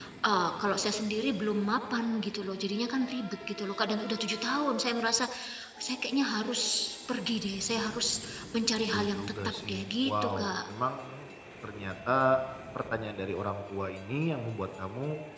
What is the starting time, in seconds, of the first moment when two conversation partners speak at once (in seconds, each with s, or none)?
8.9 s